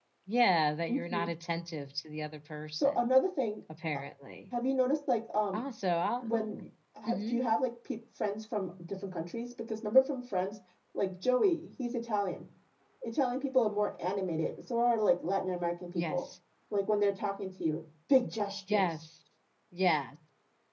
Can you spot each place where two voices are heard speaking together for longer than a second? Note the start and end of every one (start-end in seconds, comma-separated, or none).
none